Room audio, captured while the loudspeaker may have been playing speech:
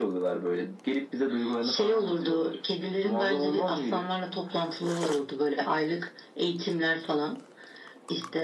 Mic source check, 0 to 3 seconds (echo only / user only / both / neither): echo only